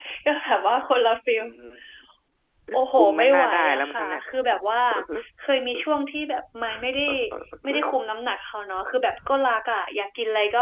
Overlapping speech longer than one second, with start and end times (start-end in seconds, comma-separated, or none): 3.0-4.2